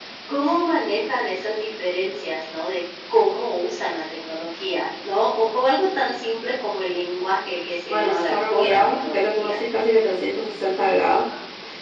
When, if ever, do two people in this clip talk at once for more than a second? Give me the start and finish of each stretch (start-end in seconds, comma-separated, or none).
7.9-9.5